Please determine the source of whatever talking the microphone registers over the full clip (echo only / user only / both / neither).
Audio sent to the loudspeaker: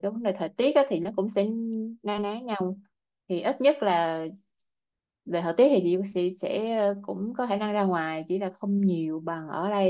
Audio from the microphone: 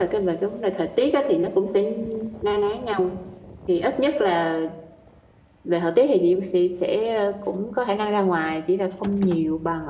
echo only